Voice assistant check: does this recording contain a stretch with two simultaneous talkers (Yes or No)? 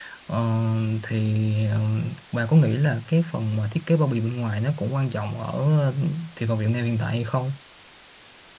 No